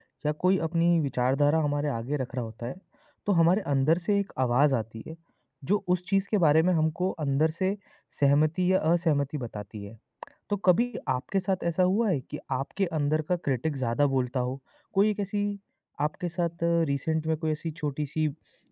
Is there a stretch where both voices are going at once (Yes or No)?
No